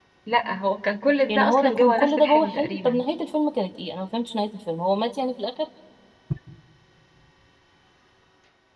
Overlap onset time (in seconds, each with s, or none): 1.3 s